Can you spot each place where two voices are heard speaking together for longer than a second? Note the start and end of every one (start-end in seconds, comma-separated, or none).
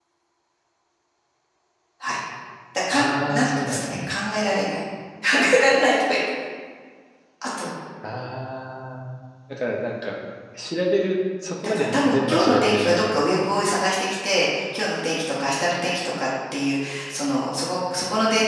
2.9-4.1, 11.6-13.2